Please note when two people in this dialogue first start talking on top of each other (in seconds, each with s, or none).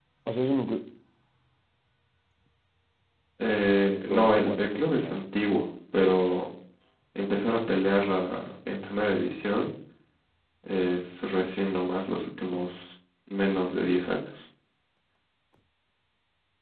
4.0 s